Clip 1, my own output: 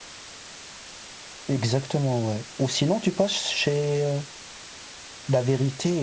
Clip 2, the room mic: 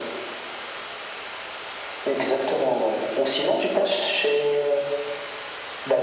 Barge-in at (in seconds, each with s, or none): none